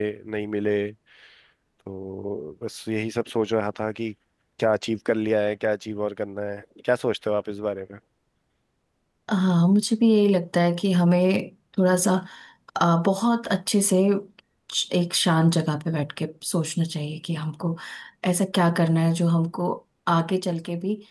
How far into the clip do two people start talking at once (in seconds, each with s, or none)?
none